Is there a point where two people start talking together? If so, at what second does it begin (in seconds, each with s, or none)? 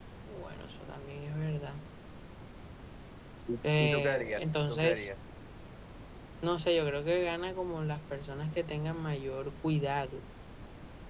3.8 s